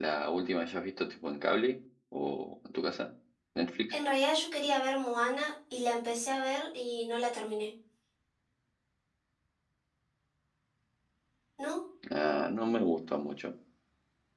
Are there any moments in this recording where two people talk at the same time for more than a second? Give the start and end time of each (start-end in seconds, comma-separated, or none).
none